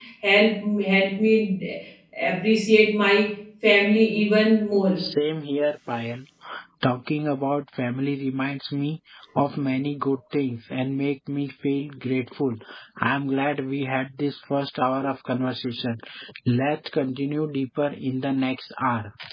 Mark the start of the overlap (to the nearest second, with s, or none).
none